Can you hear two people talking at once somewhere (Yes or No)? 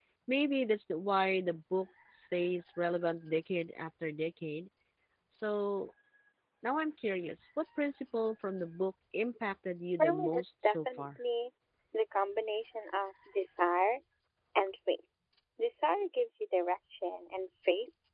Yes